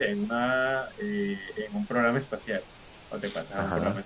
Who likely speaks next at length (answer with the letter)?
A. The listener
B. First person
B